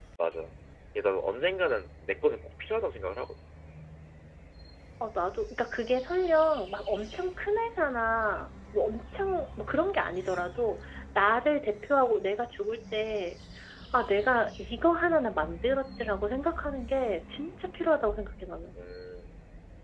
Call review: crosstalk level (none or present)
none